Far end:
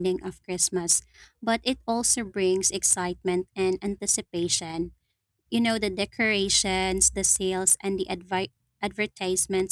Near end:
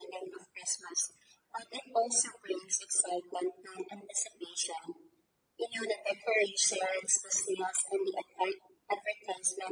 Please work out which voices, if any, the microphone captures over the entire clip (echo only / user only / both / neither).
echo only